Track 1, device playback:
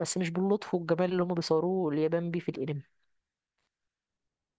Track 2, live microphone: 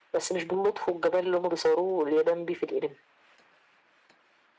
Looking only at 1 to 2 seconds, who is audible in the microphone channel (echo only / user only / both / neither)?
echo only